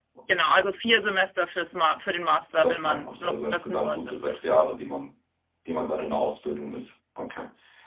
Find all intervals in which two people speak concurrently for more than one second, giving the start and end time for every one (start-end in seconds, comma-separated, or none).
2.5-4.5